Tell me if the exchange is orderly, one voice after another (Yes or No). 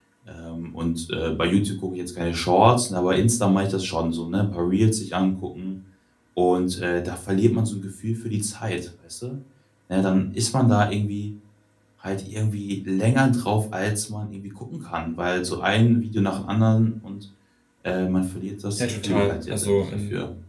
No